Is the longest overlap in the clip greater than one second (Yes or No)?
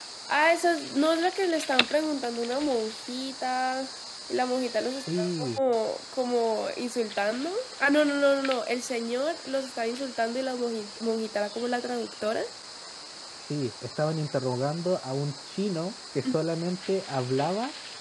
No